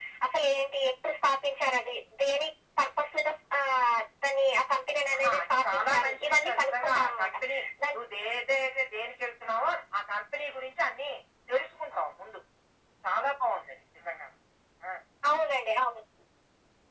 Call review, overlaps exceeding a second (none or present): present